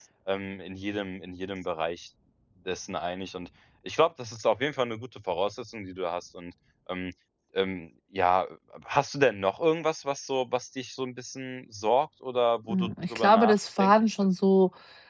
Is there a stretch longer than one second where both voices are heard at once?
Yes, from 12.7 s

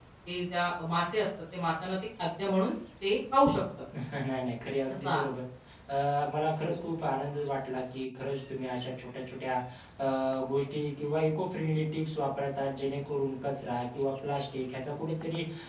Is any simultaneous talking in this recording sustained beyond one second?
No

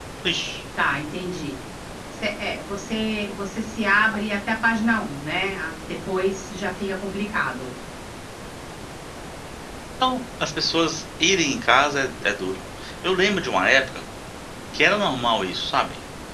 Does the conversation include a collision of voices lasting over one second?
No

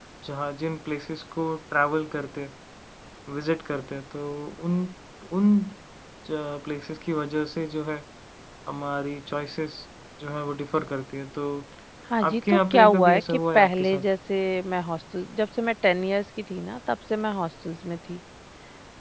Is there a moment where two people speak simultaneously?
Yes, from 12.3 s

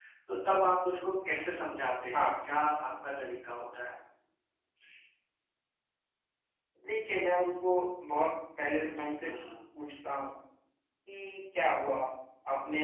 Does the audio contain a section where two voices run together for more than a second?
No

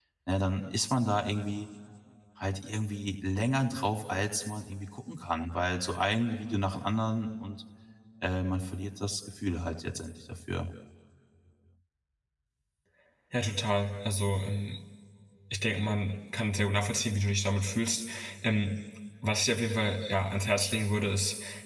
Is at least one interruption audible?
No

